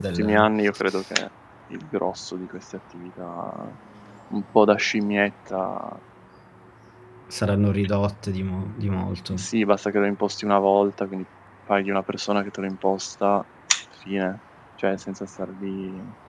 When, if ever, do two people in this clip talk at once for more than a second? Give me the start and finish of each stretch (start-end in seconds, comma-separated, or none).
none